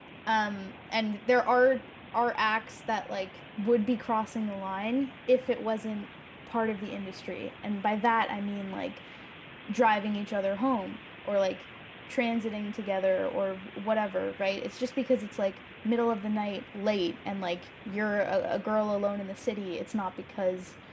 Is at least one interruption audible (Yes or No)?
No